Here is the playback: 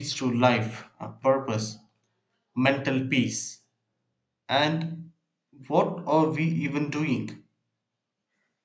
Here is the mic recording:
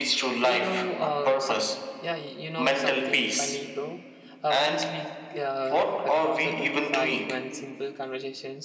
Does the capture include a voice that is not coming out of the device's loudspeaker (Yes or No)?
Yes